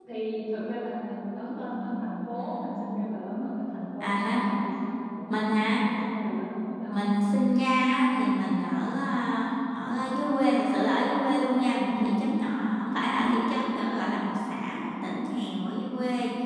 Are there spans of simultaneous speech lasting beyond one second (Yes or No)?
No